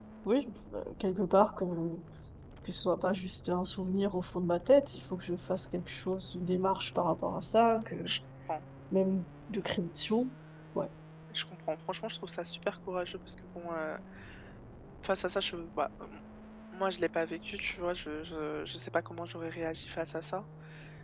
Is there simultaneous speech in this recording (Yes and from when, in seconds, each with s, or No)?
No